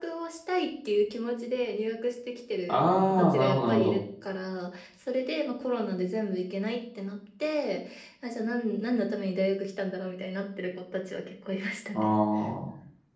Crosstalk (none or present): present